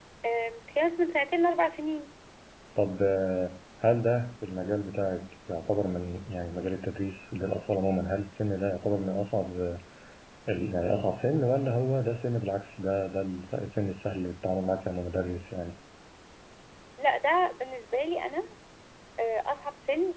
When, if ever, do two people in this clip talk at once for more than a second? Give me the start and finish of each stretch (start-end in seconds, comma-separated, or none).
none